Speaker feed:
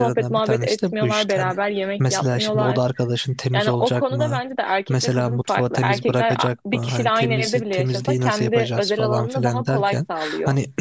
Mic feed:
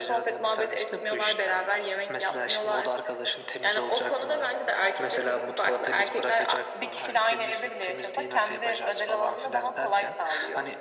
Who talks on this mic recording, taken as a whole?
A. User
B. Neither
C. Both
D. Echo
D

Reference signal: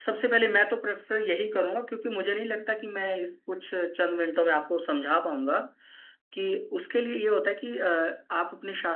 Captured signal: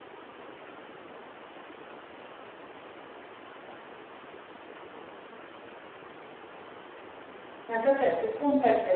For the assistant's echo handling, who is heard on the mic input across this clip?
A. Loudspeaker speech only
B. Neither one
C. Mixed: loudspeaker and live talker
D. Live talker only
D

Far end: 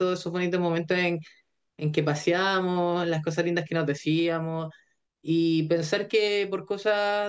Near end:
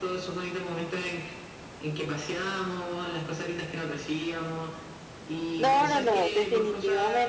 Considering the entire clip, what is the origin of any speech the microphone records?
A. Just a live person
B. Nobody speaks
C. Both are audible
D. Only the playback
C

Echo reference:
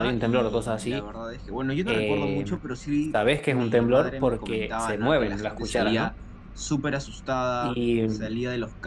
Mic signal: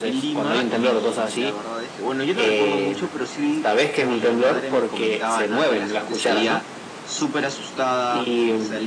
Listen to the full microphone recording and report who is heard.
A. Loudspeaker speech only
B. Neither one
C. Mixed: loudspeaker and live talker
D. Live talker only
A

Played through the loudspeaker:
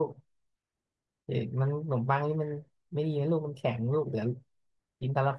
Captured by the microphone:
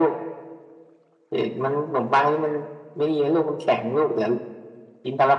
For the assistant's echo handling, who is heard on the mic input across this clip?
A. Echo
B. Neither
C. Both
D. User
A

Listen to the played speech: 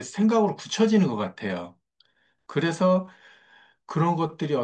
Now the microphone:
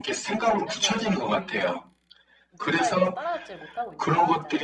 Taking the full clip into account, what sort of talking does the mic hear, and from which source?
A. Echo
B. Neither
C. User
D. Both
D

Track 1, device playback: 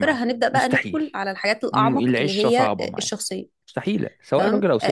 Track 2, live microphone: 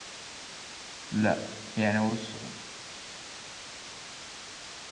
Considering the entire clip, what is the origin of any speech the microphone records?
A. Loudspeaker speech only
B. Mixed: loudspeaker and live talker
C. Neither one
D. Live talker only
D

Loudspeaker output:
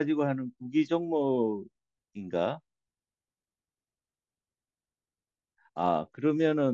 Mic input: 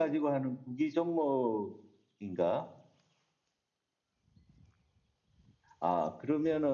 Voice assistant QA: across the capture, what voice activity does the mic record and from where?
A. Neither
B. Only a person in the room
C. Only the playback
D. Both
C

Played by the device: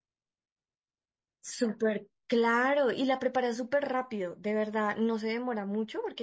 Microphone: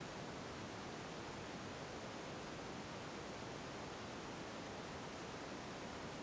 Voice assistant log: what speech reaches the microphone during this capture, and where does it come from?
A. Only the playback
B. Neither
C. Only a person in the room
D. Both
B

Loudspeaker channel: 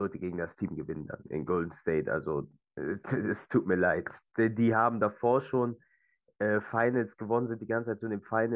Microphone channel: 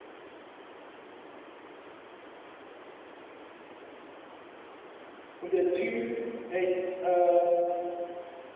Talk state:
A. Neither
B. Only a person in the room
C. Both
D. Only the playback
B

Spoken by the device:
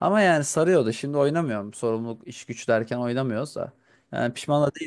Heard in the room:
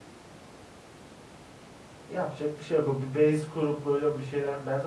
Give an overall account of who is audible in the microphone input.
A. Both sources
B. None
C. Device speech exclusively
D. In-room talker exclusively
D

